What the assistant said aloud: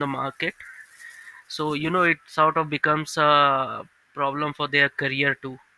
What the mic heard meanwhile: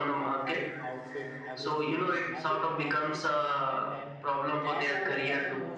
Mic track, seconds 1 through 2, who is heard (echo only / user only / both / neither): both